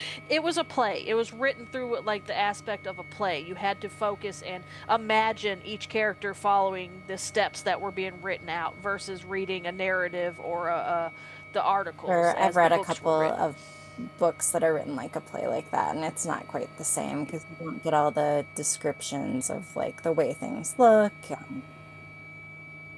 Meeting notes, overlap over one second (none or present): present